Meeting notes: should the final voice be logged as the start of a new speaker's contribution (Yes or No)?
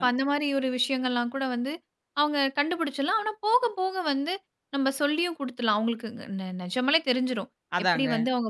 No